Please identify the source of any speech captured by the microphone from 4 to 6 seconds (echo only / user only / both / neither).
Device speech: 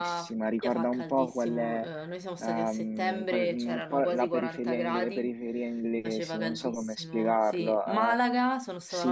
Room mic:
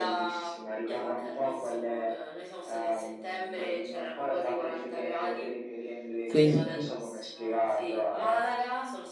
echo only